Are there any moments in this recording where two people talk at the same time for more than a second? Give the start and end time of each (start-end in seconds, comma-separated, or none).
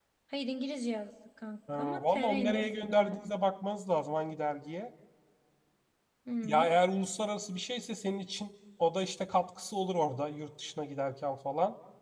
1.7-3.3